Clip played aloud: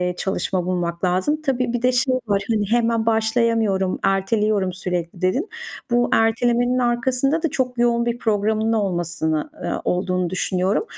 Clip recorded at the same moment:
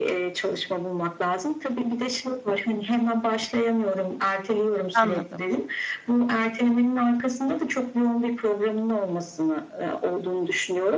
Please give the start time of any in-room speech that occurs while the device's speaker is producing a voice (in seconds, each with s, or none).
4.9 s